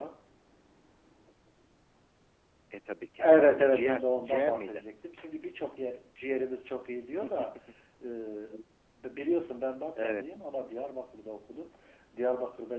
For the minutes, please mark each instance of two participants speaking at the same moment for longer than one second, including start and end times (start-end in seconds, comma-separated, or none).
3.2-4.8